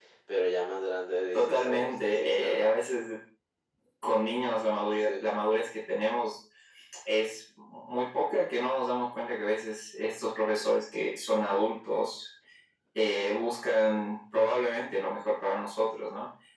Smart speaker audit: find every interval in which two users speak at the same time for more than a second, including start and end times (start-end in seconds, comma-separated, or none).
1.3-2.7